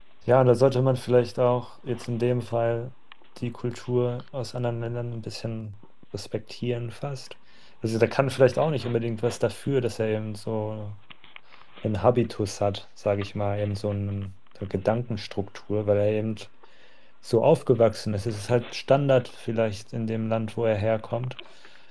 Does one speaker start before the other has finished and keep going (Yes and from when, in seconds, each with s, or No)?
No